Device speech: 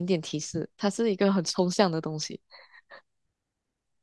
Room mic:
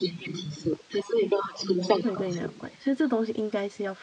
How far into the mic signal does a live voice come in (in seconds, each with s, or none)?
2.0 s